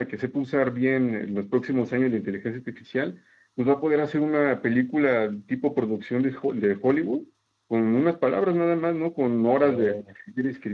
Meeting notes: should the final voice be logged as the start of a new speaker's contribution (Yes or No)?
No